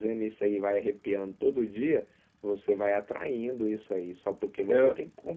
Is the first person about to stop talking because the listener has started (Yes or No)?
No